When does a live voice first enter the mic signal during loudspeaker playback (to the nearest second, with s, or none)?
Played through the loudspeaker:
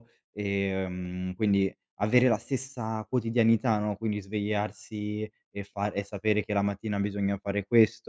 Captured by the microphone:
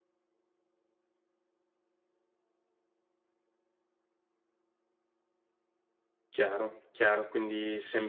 6 s